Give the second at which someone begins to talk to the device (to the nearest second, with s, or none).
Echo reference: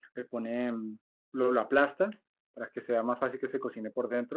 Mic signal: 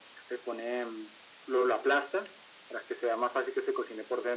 none